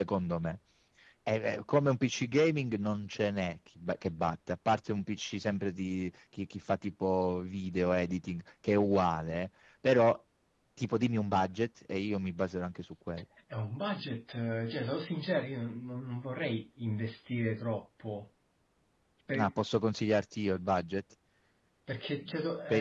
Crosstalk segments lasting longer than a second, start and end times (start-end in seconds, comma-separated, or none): none